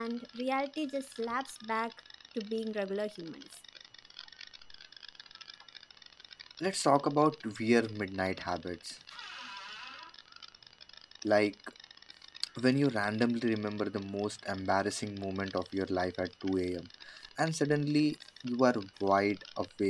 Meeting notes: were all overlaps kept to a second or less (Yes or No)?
Yes